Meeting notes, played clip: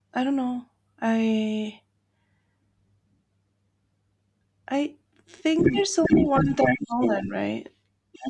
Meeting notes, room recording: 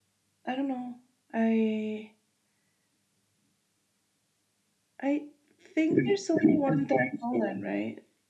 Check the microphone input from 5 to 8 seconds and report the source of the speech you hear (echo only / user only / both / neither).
echo only